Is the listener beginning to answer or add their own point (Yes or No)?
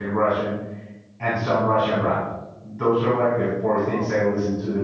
No